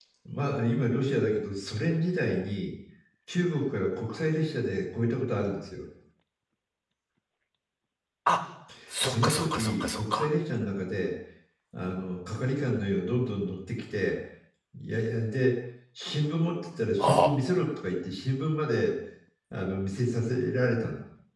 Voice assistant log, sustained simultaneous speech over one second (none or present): present